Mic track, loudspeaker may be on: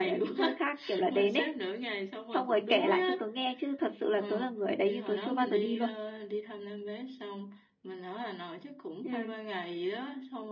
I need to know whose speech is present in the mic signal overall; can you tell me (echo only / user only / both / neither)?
echo only